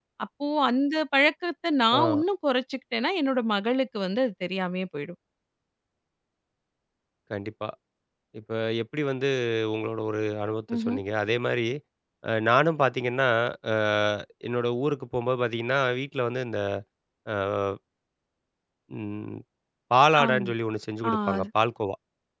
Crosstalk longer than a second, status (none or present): none